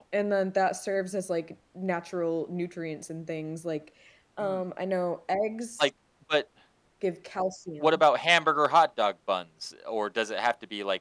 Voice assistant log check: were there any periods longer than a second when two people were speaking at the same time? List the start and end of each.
none

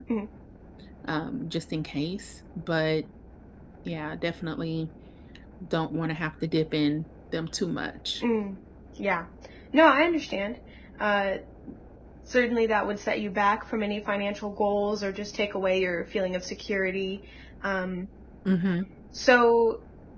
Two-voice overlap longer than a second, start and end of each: none

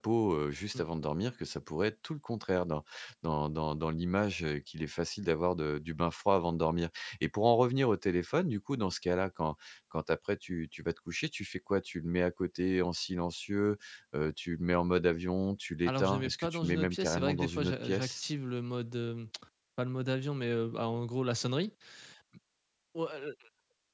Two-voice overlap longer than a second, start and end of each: 15.9-18.2

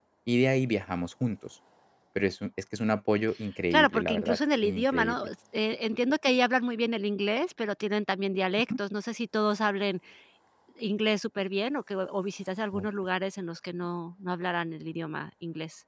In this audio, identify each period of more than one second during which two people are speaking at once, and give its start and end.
3.7-5.3

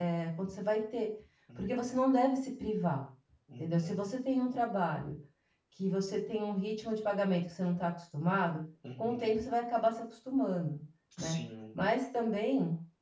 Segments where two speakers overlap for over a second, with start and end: none

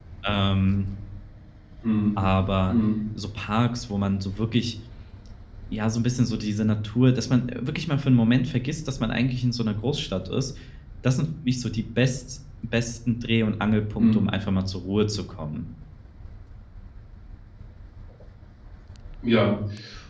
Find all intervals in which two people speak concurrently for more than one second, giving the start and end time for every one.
none

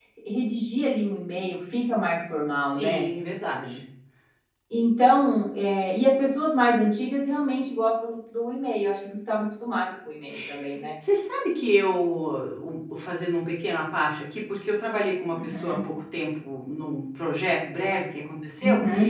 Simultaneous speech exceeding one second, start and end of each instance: none

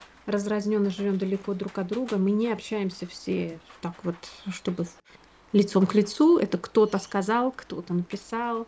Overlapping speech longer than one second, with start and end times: none

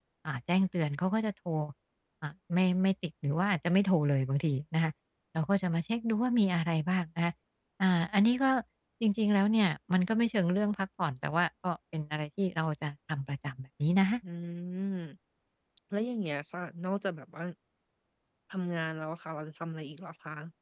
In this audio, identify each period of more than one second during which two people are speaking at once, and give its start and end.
none

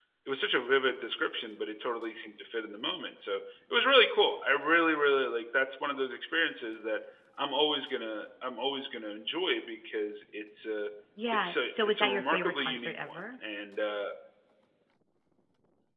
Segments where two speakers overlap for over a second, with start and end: 11.3-13.2

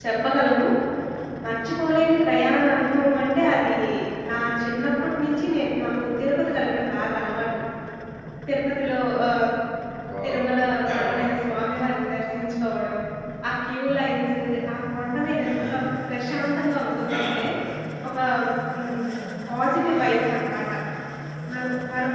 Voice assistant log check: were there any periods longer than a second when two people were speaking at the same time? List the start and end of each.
none

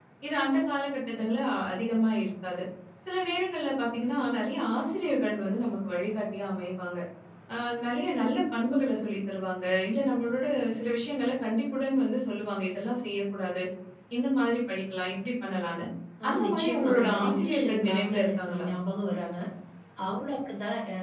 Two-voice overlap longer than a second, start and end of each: 16.3-18.7

